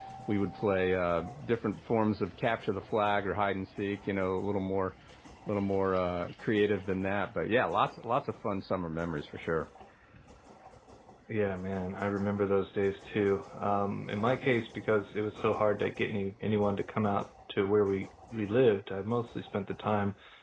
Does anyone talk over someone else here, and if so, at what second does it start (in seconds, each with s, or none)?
none